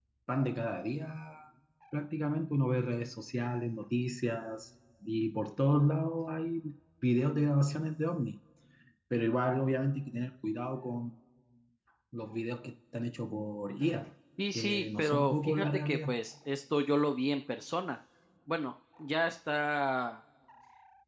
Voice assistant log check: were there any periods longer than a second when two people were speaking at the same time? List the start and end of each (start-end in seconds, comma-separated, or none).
14.5-16.1